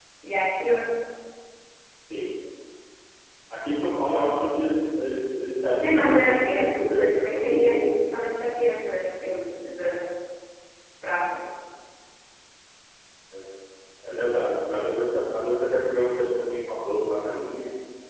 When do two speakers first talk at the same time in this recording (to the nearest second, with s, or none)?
6 s